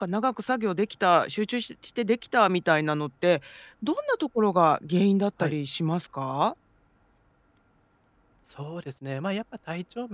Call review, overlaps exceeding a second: none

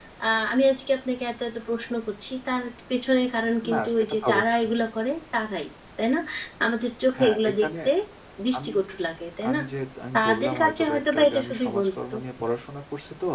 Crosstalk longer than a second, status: present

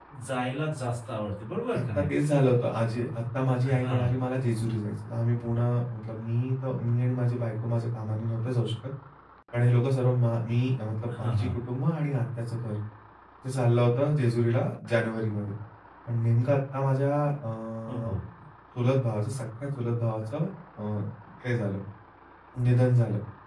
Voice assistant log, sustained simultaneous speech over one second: none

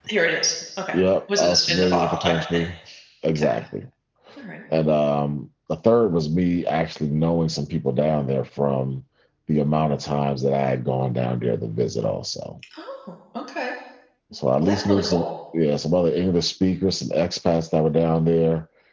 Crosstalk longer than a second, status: present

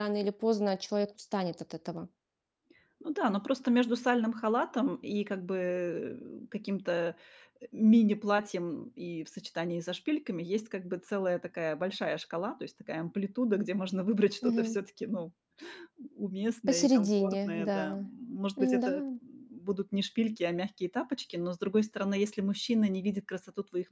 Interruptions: present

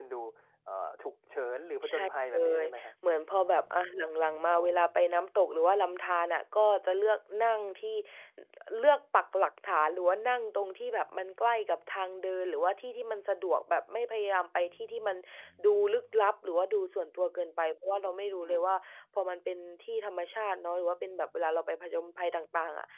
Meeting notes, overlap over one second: present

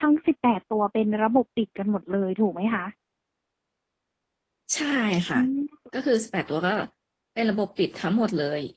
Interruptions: none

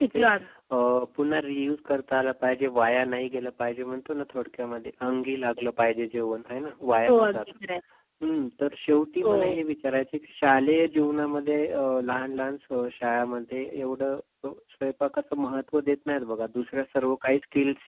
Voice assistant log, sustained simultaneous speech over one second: none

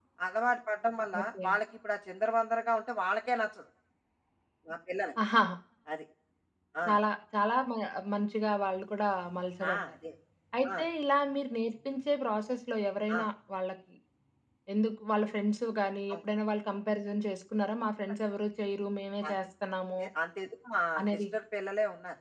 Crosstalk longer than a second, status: none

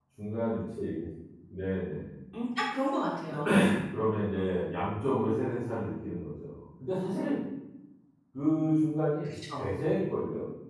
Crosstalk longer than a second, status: none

